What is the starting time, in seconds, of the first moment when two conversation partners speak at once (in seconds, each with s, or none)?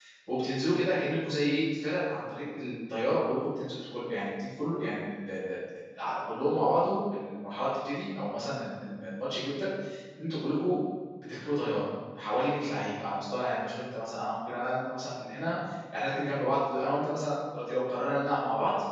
none